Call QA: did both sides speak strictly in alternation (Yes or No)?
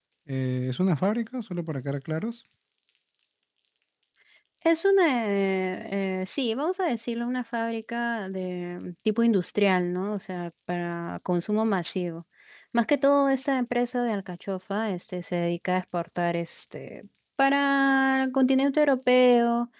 Yes